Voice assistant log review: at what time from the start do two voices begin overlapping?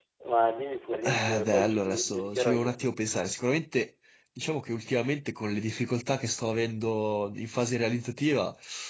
1.0 s

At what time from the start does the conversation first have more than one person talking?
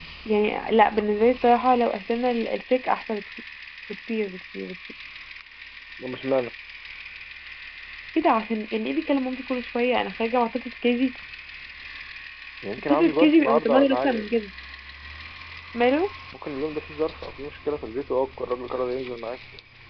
12.9 s

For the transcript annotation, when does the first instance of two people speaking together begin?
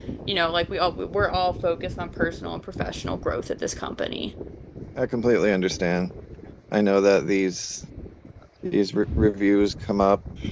none

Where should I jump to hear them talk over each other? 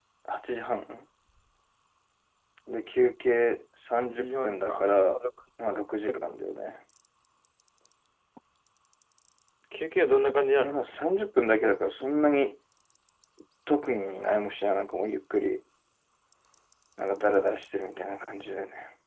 4.0 s

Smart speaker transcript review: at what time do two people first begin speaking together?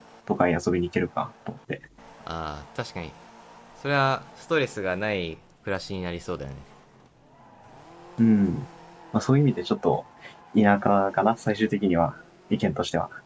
none

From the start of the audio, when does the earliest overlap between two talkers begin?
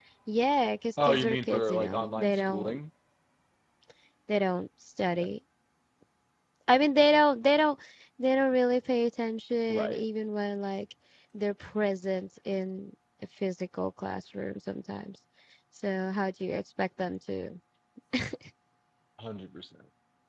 1.0 s

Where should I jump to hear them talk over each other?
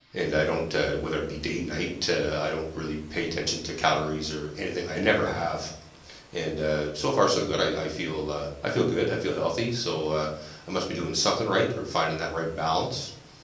none

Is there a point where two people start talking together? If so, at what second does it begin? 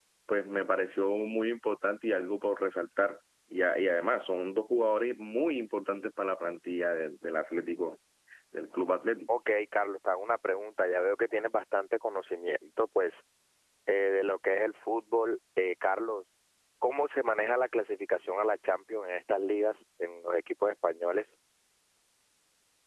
none

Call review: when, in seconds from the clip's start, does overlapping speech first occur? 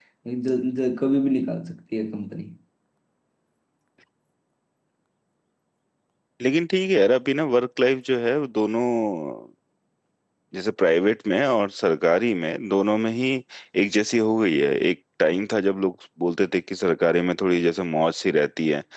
none

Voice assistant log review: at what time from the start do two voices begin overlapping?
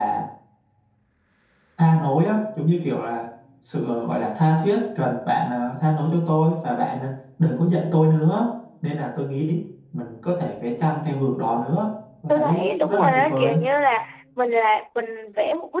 12.3 s

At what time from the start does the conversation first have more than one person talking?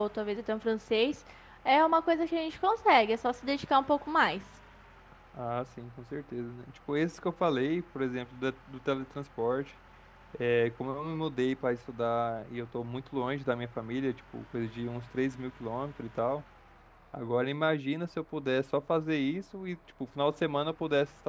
none

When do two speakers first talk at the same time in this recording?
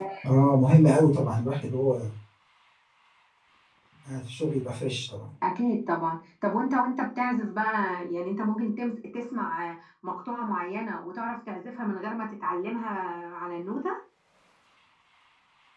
none

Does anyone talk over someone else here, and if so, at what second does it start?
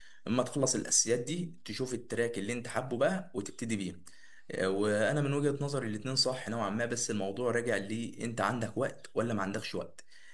none

